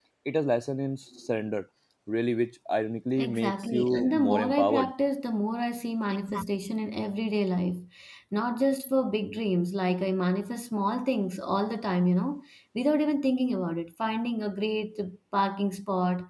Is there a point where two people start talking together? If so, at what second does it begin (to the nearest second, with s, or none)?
3 s